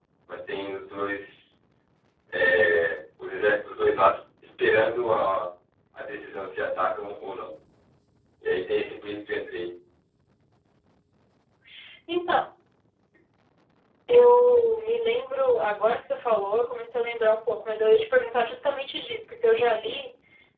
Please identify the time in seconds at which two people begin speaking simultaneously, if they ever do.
none

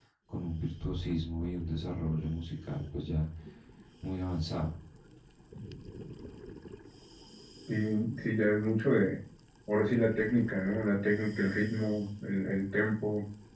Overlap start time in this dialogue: none

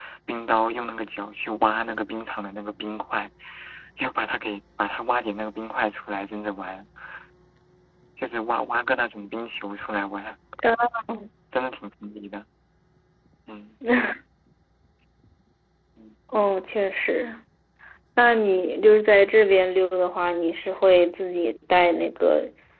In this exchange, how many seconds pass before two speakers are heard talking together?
none

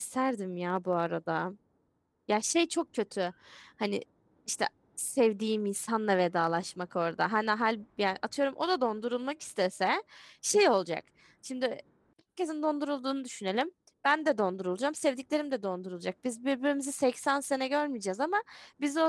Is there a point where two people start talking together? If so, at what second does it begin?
none

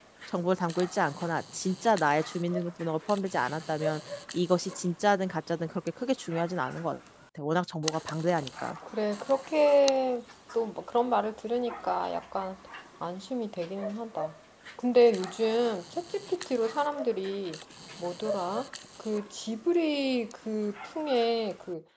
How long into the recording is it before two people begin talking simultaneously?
none

